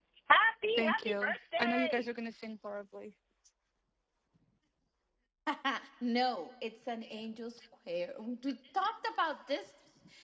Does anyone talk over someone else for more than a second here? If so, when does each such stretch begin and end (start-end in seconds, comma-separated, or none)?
0.8-2.0